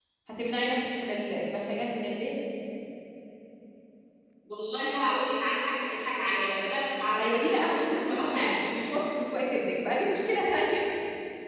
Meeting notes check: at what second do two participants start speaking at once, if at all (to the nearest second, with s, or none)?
7 s